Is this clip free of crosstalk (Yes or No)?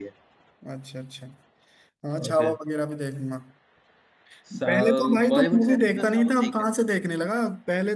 No